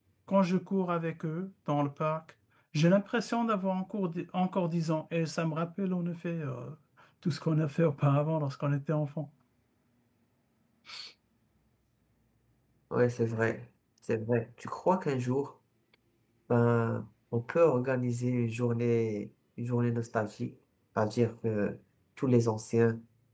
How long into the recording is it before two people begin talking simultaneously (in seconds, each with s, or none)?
none